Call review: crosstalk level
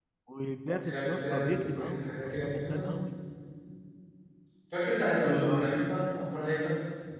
present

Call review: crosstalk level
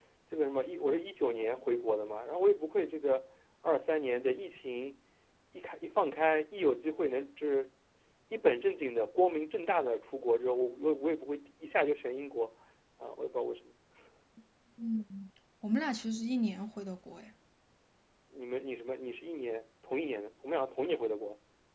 none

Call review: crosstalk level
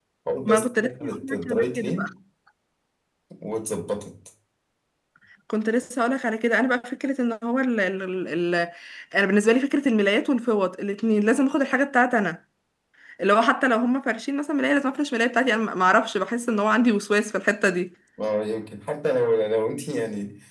present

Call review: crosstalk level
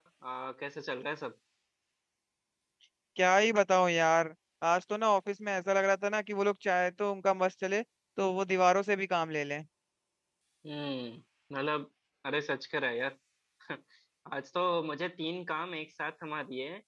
none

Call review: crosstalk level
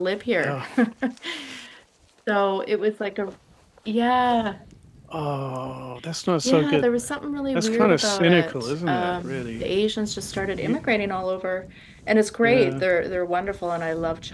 present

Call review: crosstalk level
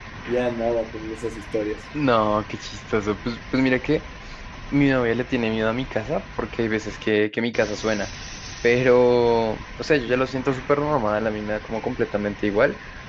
none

